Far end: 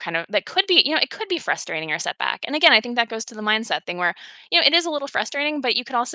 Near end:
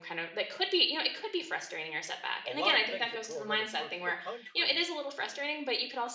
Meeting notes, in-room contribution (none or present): present